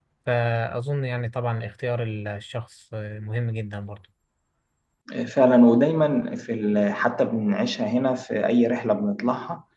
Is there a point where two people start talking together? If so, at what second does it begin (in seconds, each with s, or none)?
none